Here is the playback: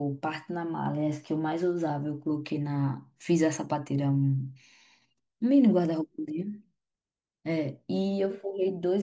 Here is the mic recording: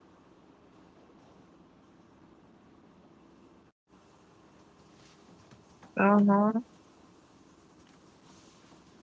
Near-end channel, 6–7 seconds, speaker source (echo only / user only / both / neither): user only